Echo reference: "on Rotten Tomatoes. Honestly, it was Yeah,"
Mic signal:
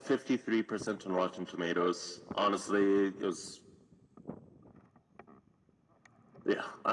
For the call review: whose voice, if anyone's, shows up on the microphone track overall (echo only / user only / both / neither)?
echo only